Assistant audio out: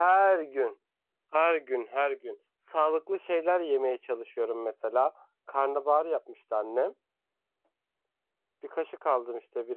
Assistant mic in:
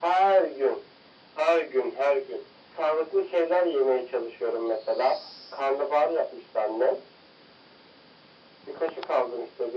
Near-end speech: none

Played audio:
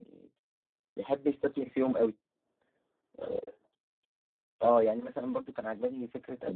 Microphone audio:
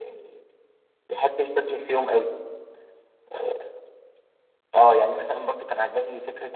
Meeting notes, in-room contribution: none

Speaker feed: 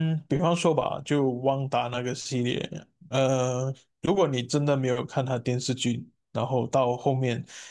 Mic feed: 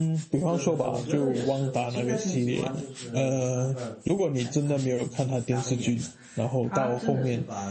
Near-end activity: present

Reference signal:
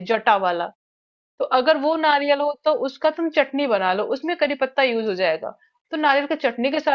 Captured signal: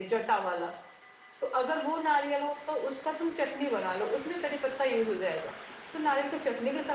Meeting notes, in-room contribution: none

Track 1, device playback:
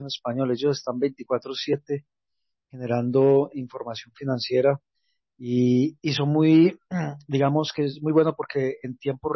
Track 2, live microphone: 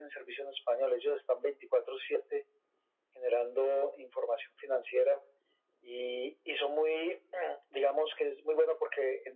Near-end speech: none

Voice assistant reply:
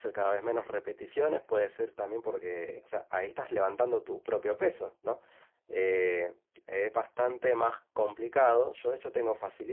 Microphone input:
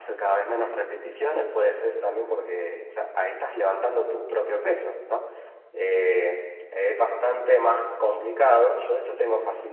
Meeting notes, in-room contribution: none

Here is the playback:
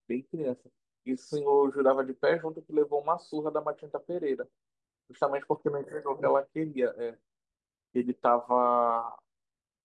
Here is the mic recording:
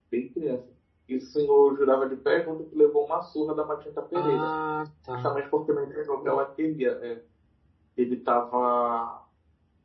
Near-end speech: present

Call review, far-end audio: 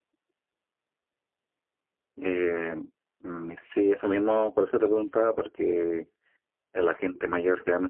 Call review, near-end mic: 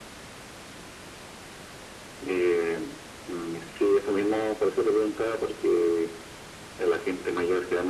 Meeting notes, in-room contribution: none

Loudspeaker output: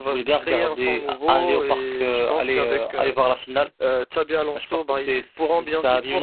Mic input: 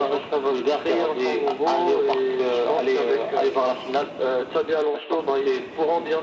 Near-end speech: none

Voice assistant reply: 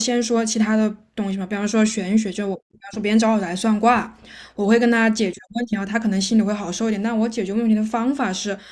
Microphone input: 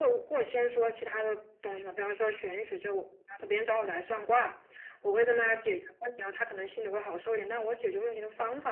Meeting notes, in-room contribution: none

